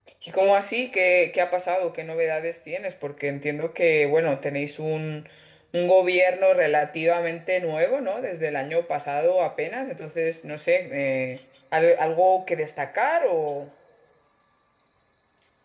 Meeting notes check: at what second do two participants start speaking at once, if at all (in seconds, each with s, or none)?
none